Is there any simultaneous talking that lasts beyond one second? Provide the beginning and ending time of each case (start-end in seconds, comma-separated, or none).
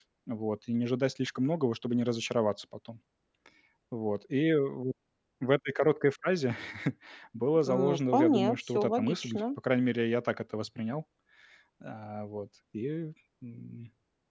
7.6-9.4